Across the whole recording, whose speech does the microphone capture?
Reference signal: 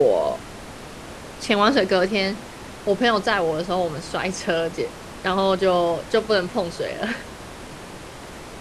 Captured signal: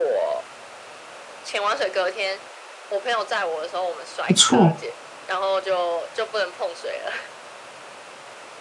both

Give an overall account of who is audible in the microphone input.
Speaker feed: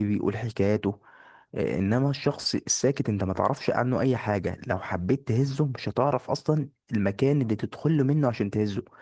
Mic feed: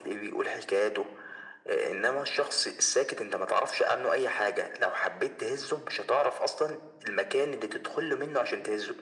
echo only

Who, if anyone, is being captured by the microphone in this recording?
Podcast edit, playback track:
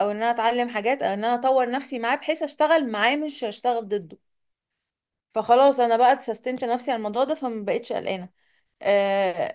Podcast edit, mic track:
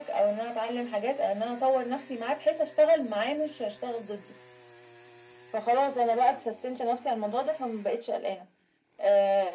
echo only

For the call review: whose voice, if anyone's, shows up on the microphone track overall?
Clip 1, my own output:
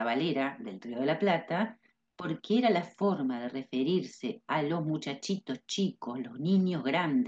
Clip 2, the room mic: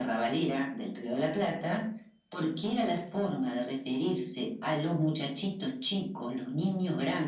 echo only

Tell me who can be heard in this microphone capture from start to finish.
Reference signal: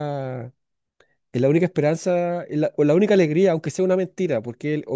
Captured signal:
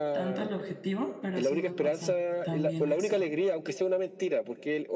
both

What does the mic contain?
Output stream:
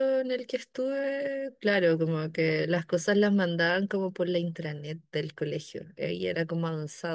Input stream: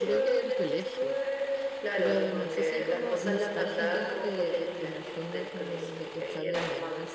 both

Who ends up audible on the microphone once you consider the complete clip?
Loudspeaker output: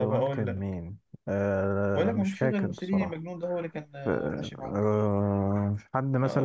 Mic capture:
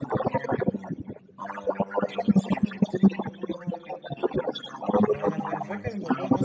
both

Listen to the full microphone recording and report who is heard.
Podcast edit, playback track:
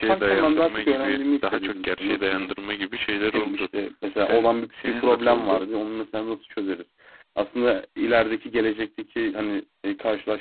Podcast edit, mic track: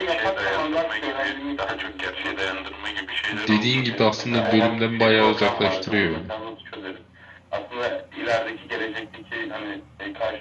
both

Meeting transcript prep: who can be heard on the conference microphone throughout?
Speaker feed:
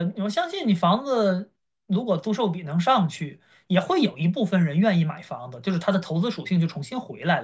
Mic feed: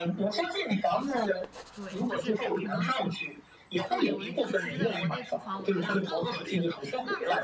both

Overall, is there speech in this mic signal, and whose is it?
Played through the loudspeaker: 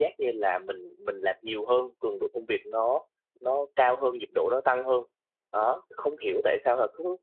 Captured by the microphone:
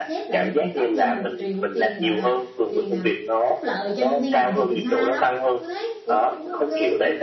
both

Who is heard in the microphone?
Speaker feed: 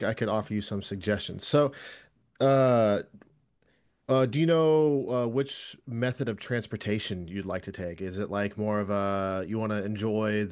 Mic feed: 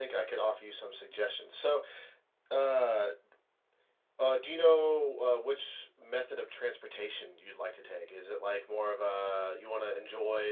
echo only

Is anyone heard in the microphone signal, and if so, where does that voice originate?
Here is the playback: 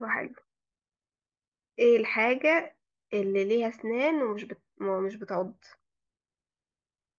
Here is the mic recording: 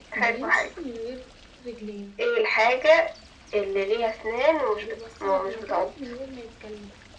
both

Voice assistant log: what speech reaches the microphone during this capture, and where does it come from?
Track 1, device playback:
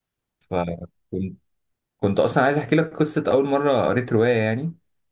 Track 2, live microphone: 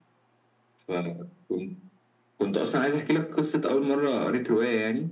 echo only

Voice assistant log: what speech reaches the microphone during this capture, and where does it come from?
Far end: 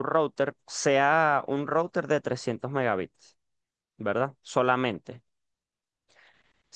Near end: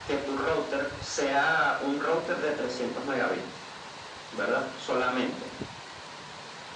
echo only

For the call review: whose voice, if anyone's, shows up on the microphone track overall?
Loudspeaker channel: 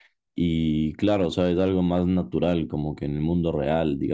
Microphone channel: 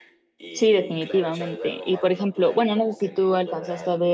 both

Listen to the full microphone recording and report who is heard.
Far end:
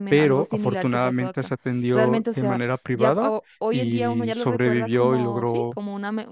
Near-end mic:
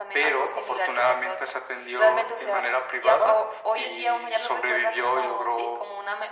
echo only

